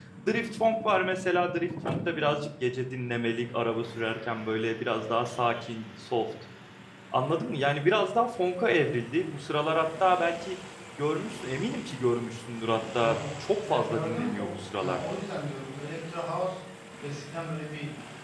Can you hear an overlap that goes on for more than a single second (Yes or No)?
Yes